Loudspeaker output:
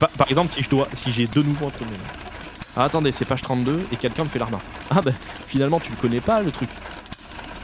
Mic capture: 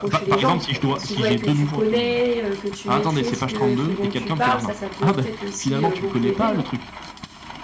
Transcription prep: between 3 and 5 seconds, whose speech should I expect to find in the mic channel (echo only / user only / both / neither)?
both